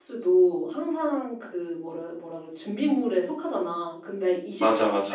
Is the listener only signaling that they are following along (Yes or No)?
Yes